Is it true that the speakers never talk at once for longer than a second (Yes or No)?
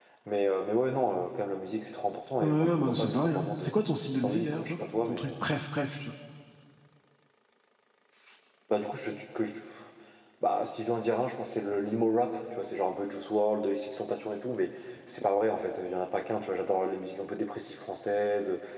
No